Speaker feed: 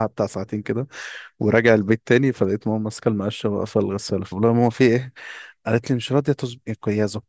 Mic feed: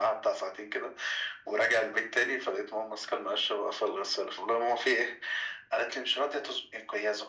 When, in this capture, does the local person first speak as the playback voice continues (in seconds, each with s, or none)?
none